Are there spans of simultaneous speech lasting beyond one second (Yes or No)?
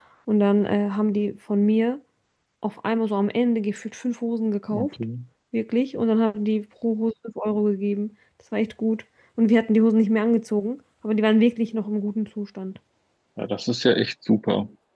No